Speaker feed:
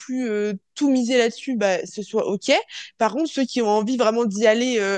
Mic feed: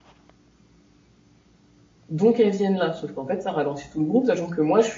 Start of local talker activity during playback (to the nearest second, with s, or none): 2 s